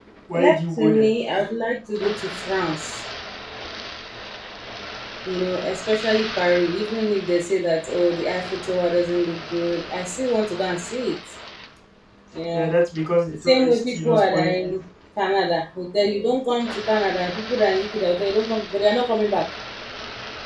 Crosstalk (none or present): present